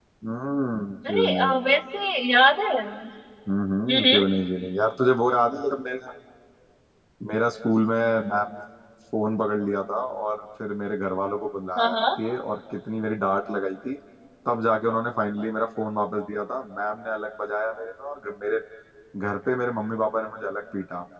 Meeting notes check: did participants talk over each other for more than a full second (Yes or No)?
No